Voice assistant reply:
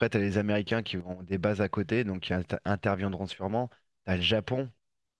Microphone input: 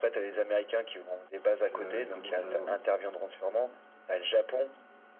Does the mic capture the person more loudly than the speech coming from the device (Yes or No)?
No